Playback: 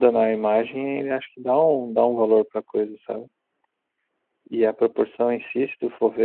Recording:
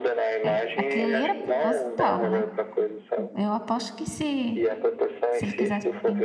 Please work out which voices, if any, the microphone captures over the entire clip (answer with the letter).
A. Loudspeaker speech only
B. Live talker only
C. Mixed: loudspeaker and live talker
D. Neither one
C